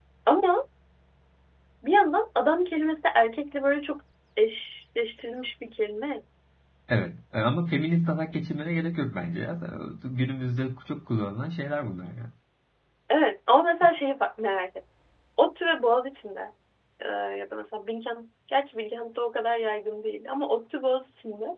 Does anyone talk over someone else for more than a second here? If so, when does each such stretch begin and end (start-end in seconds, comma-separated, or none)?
none